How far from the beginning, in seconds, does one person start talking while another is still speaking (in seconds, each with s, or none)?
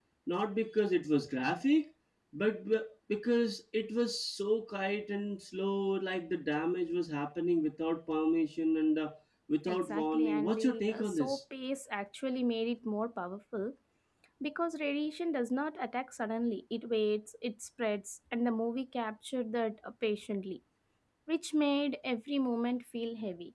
9.7 s